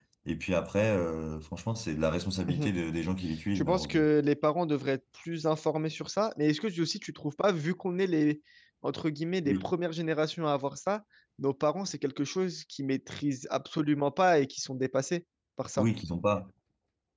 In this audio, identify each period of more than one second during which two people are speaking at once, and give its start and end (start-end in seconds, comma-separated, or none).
none